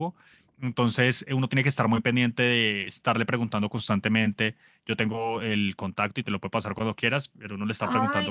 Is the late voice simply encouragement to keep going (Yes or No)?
Yes